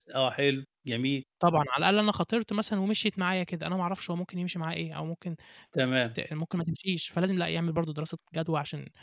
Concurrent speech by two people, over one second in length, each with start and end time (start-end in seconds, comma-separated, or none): none